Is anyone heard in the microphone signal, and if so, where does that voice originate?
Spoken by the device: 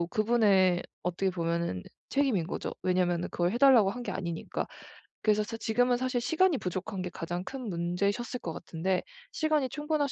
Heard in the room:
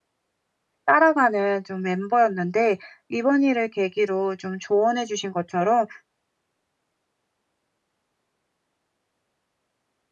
user only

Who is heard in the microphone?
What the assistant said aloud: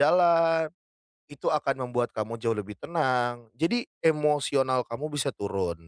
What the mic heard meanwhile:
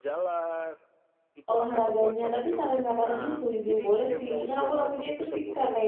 both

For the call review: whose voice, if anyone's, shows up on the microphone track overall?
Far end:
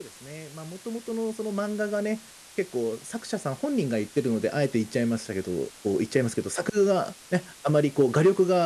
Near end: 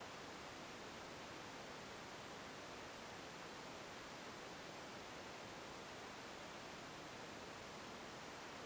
neither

